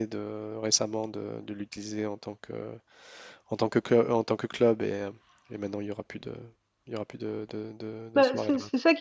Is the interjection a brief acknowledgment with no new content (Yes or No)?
No